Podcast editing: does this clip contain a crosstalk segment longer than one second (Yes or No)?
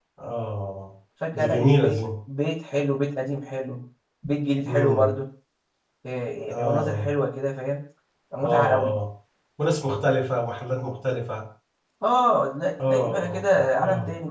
Yes